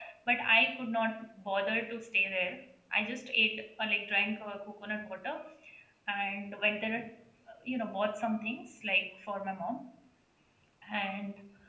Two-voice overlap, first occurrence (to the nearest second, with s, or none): none